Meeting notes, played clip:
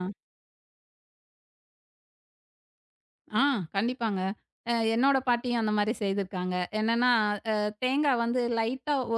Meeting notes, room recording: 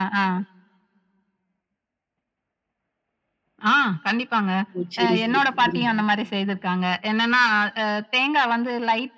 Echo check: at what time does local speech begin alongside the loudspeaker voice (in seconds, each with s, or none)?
4.8 s